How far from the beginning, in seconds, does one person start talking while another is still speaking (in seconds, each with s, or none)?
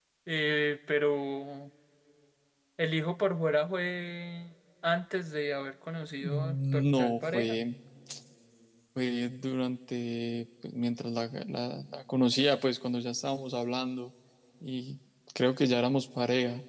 6.2 s